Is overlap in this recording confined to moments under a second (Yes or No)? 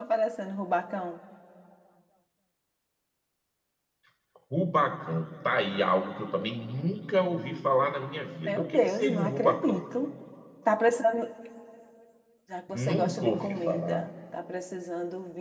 No